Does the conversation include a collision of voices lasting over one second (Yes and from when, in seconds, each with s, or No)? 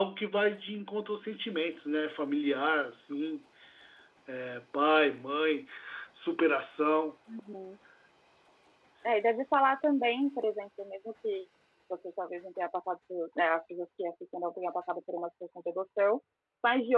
No